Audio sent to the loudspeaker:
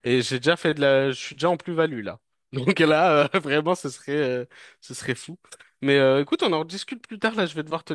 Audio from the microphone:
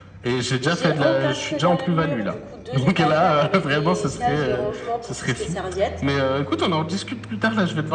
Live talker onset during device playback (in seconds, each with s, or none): 0.6 s